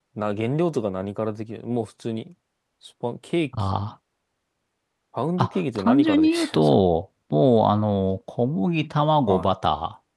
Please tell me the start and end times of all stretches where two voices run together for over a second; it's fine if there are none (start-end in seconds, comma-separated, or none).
5.4-6.8